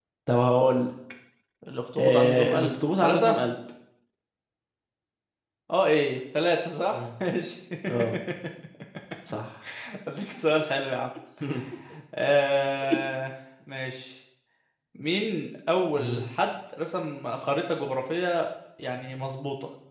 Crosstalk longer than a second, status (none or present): present